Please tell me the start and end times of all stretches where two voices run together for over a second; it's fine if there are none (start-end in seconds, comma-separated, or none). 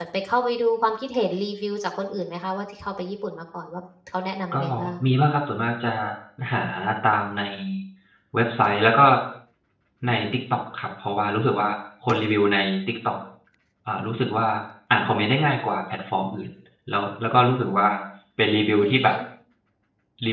none